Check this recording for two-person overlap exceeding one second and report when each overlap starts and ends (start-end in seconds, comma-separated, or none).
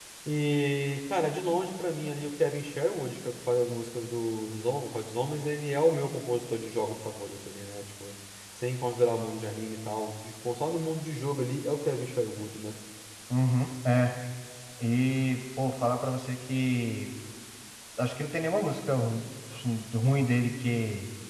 none